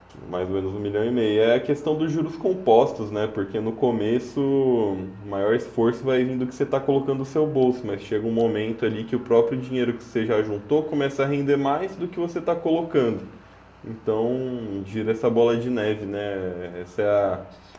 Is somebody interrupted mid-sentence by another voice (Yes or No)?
No